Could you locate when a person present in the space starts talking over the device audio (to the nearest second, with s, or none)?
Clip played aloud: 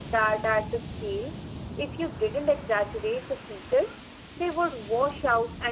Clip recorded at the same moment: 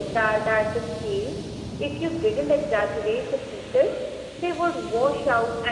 none